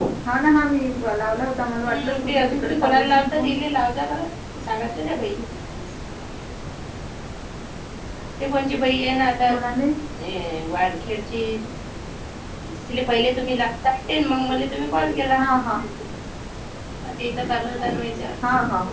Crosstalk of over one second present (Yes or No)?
Yes